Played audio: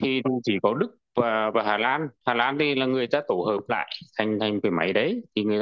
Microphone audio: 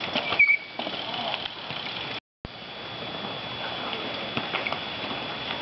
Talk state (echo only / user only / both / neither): neither